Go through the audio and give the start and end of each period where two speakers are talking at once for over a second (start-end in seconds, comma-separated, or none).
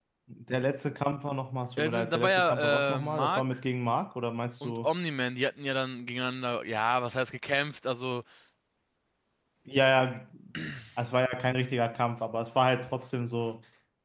1.8-3.4